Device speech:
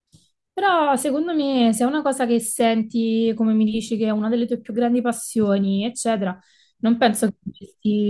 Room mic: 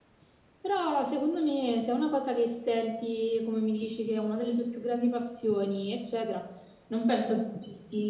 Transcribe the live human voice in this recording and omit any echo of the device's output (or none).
none